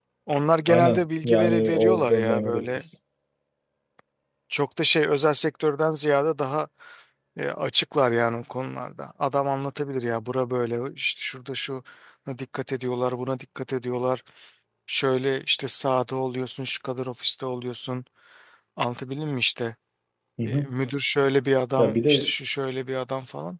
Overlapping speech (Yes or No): Yes